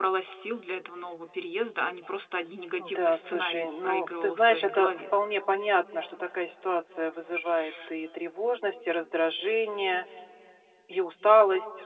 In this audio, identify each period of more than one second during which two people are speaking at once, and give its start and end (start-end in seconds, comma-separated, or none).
2.8-4.9